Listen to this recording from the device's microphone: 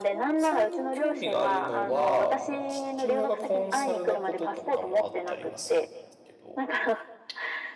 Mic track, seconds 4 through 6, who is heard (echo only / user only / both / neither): both